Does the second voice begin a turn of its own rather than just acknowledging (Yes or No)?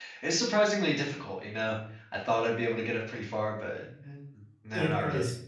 Yes